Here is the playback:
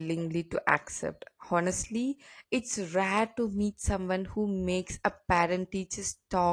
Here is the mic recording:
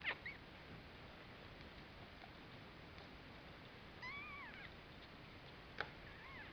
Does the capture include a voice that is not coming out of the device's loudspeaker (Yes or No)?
No